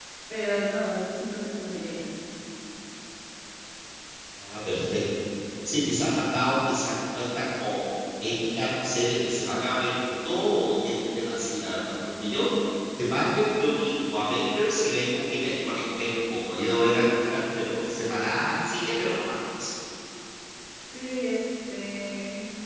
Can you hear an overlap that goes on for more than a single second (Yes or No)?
No